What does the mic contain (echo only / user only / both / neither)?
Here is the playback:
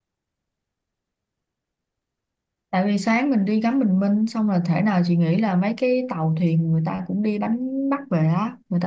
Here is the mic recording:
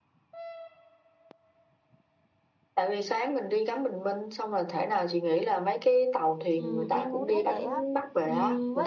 both